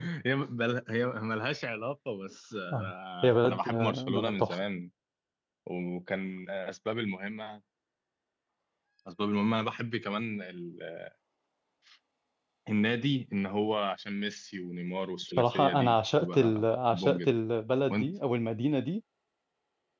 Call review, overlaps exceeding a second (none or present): present